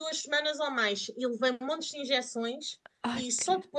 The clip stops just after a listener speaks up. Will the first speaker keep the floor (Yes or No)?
Yes